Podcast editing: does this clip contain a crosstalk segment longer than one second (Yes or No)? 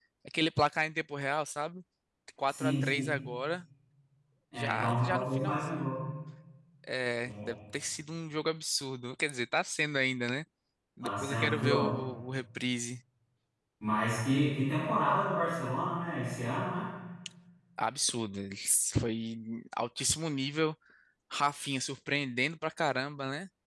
Yes